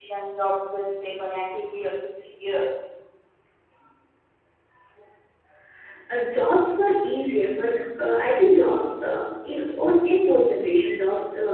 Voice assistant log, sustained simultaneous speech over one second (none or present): none